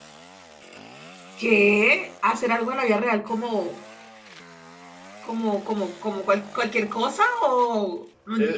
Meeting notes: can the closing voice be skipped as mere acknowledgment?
No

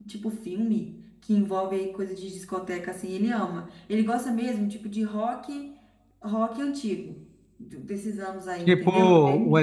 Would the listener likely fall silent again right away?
No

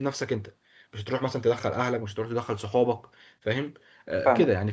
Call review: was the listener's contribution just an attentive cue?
Yes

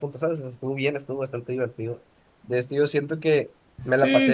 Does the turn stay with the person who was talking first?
Yes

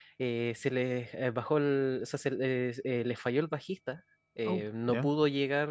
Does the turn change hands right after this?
No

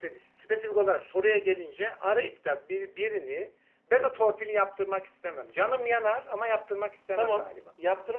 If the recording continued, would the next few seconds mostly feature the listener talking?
Yes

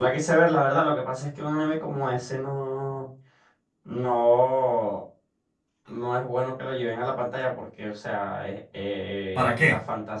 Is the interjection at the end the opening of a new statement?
No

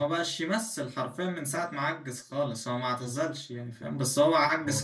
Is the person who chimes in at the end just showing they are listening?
Yes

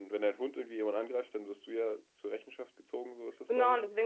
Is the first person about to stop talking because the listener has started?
Yes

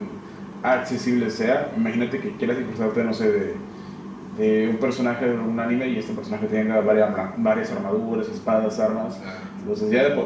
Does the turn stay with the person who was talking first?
Yes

